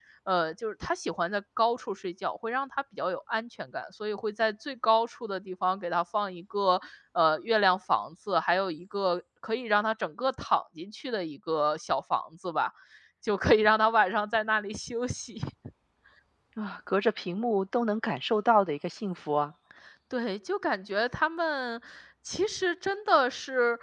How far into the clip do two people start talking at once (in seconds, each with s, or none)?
none